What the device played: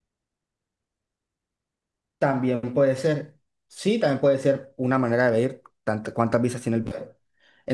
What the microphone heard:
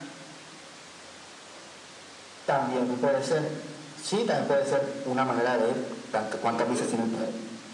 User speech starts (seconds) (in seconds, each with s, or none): 6.5 s